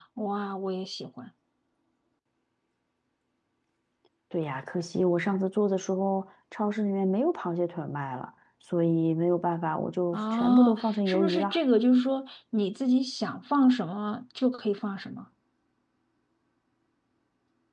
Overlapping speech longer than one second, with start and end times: 10.1-11.6

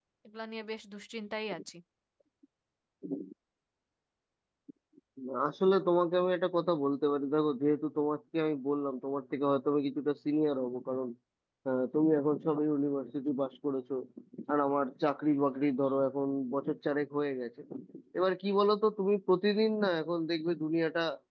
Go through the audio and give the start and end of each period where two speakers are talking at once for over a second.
none

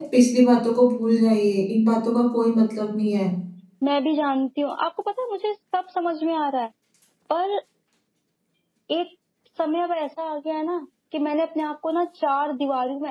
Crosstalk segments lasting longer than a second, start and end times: none

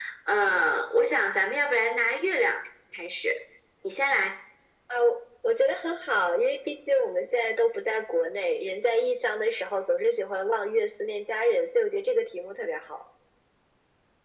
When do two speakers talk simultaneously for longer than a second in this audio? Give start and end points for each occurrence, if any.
none

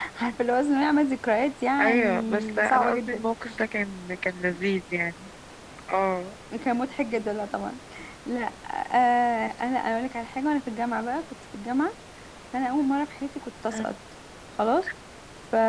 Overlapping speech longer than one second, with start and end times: 1.8-3.2

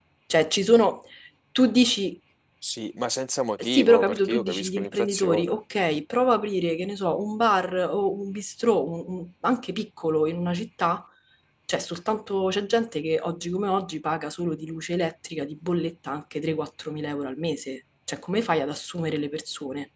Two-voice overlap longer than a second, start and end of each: 3.6-5.6

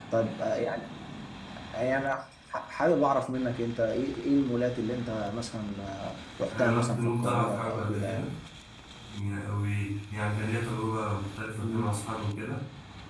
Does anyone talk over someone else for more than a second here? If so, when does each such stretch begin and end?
6.5-8.3

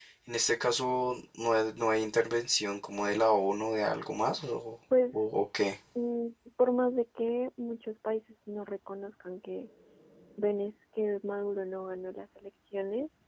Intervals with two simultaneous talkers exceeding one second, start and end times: none

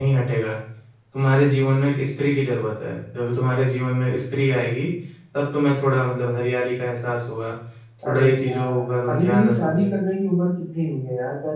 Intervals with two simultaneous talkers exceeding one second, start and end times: 8.1-9.9

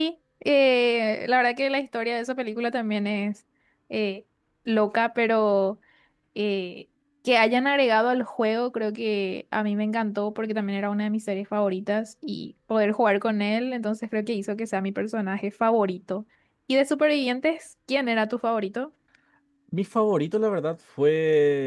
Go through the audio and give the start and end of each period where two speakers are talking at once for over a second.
none

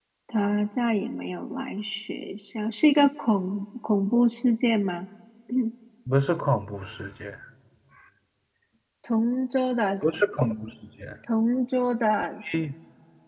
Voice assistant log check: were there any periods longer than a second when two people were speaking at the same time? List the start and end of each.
none

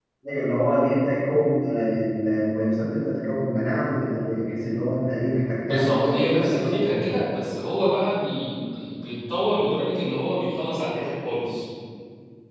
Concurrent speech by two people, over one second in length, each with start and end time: 5.7-7.1

